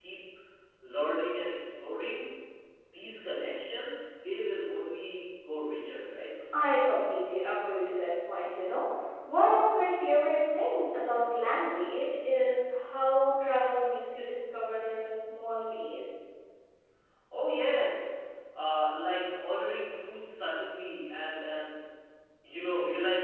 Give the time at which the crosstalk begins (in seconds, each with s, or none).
none